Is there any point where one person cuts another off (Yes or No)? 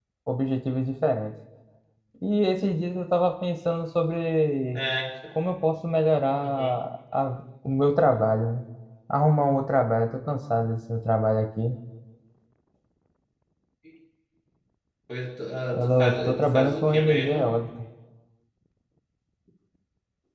Yes